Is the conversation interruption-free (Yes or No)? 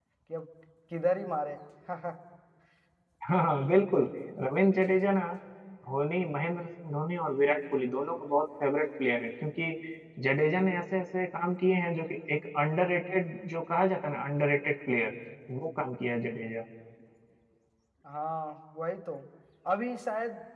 Yes